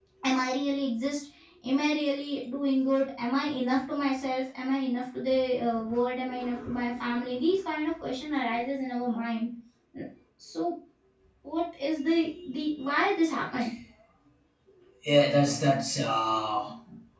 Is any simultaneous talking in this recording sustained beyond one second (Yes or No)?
No